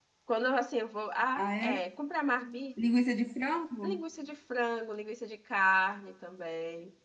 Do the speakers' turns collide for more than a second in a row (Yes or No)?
No